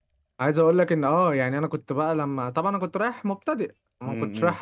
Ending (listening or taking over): listening